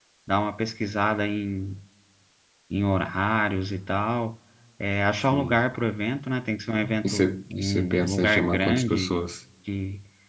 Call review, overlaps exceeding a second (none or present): present